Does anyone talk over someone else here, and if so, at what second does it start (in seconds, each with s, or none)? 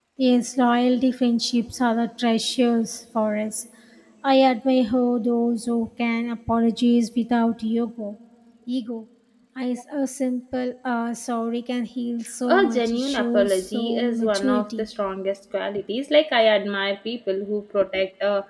12.4 s